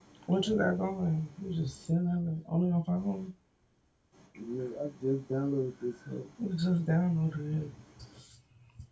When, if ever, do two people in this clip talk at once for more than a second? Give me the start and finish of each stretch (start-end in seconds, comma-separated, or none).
none